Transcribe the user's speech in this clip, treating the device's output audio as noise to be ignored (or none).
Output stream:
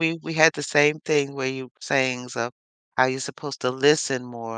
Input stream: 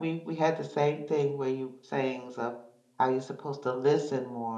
none